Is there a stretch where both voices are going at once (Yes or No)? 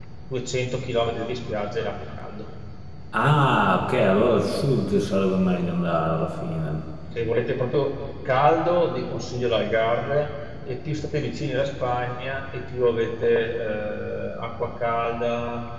No